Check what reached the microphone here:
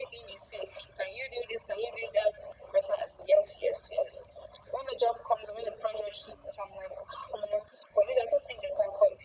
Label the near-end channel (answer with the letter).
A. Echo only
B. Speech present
A